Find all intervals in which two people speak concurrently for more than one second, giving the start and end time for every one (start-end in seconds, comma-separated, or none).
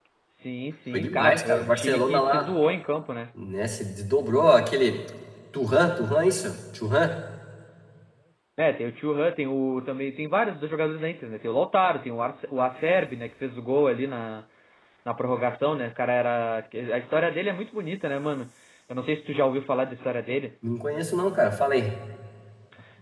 0.9-2.5